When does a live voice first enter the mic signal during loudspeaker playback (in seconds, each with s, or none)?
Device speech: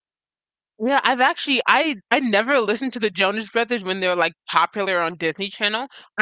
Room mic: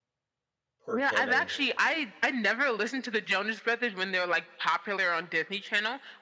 0.8 s